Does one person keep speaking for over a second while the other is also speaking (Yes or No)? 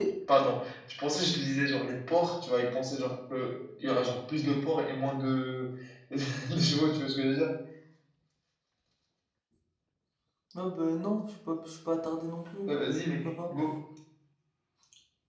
No